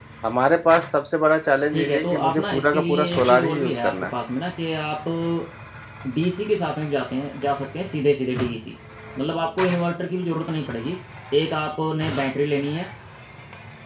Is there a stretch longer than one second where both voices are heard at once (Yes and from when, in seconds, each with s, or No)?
Yes, from 1.7 s